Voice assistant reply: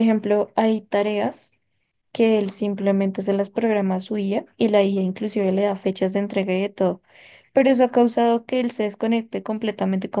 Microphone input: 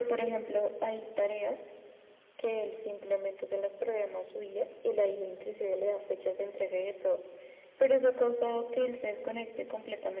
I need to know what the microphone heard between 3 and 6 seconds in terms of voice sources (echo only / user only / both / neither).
echo only